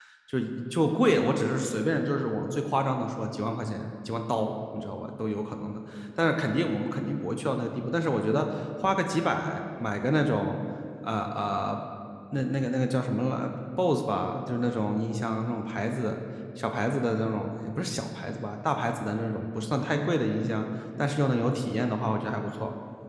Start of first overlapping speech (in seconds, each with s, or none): none